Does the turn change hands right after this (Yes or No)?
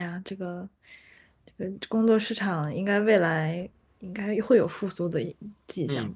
Yes